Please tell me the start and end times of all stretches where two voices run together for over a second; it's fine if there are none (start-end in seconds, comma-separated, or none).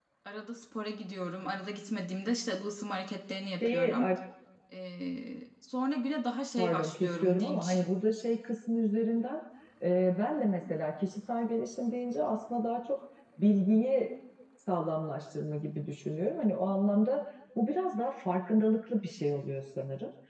6.6-7.8